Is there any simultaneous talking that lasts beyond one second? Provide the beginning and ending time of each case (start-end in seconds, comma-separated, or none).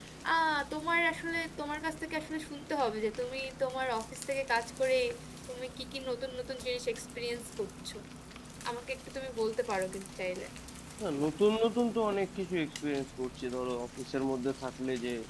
none